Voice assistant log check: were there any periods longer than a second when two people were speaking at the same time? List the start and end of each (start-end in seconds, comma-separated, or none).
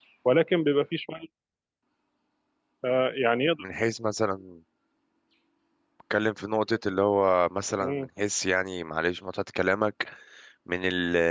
none